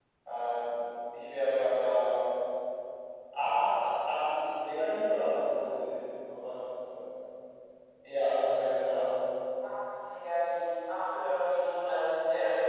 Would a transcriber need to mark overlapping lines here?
No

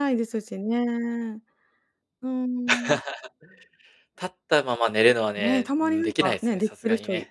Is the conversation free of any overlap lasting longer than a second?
No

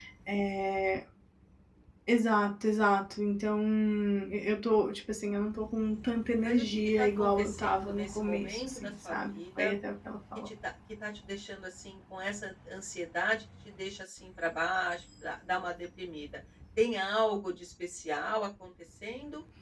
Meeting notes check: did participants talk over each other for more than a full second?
Yes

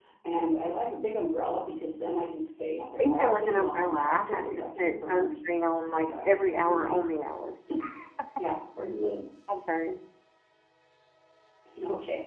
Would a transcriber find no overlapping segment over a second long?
No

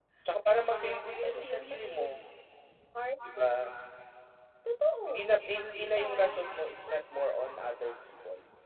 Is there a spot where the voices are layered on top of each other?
Yes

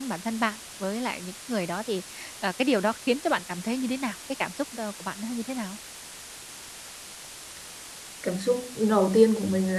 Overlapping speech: No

